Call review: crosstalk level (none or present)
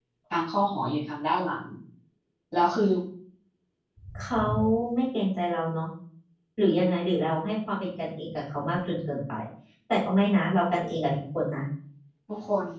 none